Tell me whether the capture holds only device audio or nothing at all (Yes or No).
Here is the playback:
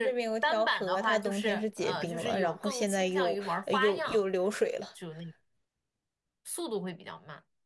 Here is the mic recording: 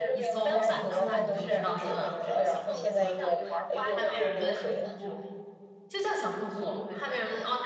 No